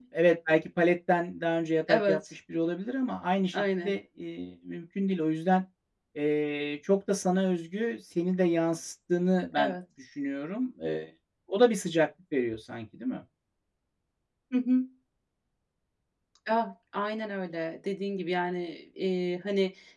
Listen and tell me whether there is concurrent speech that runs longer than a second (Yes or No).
No